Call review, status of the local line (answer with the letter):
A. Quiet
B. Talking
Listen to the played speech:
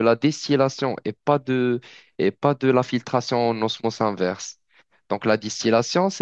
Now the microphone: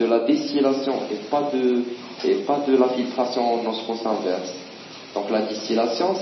A